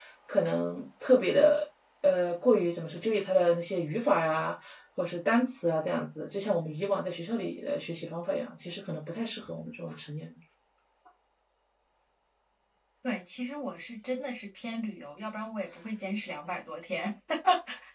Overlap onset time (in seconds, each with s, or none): none